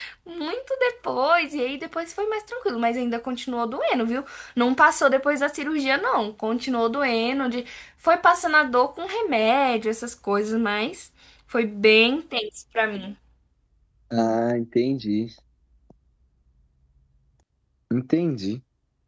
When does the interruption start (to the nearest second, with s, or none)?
none